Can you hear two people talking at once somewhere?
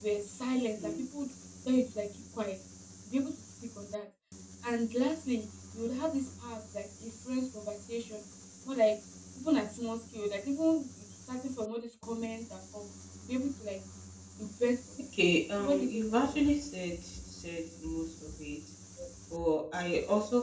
Yes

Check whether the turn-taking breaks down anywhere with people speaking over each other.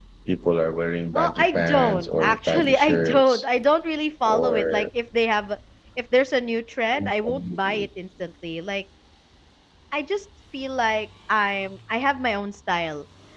Yes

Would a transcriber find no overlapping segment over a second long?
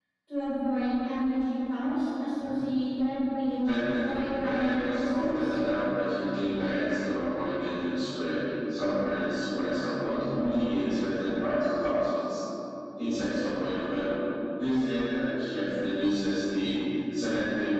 No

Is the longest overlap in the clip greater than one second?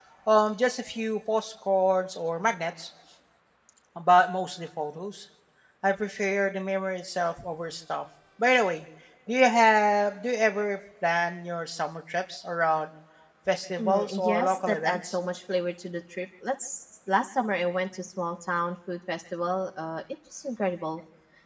Yes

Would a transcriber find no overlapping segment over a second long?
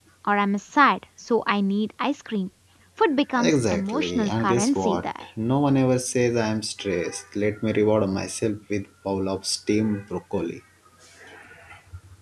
No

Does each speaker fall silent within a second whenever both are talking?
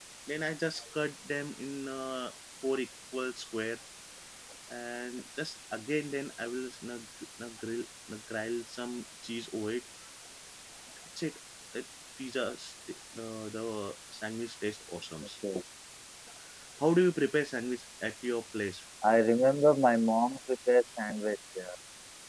Yes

